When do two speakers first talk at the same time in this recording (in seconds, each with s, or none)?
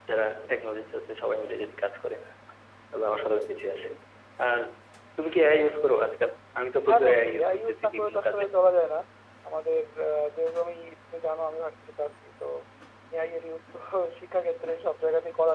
6.9 s